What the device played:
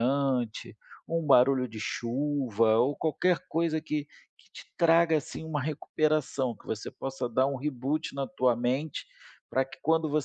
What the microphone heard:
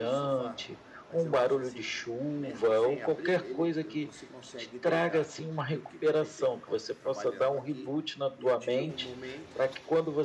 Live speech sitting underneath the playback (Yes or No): Yes